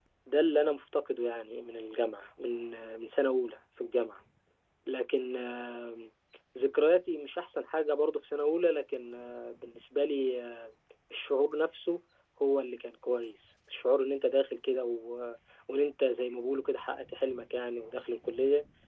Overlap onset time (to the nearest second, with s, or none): none